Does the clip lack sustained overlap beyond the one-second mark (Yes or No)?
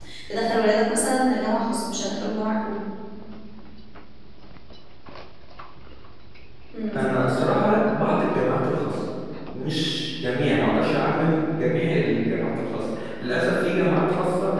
Yes